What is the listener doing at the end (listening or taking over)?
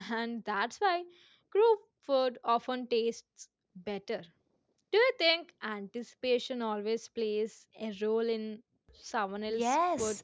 taking over